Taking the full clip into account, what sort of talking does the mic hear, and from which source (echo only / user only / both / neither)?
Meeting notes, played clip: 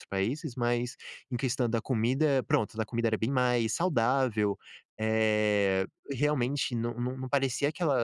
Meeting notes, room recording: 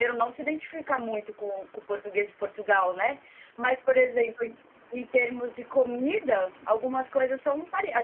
user only